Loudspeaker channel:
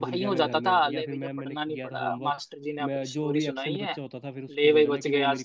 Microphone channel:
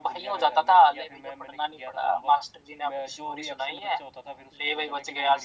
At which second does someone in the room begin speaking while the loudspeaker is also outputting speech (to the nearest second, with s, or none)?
none